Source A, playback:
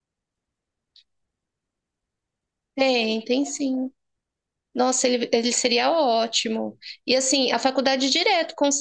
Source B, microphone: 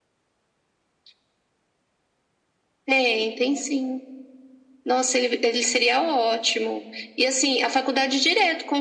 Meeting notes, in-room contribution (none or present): none